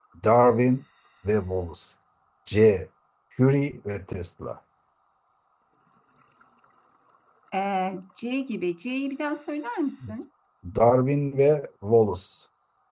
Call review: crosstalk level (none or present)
none